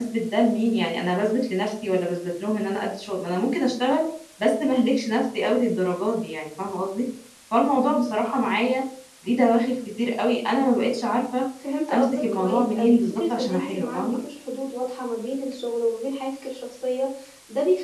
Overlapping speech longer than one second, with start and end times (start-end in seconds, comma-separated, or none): 11.9-14.2